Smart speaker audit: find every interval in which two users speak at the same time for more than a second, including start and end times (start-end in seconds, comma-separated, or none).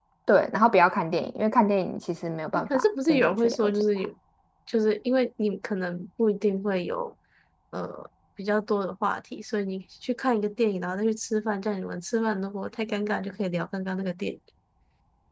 2.5-4.1